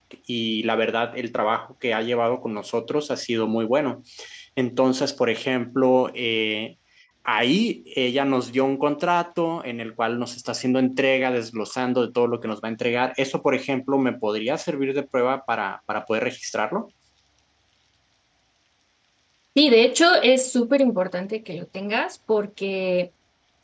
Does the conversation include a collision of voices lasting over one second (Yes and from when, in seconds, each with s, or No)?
No